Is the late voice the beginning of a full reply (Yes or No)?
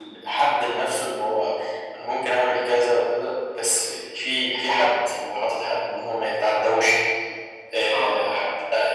No